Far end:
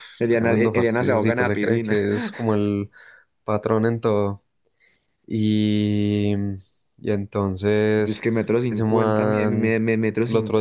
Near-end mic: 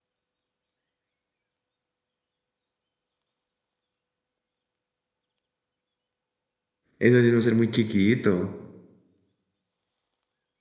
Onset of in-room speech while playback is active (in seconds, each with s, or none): 7.0 s